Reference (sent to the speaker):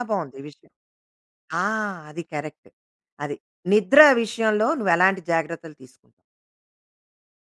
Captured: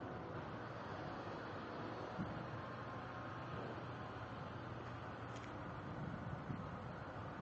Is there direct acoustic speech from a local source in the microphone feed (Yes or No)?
No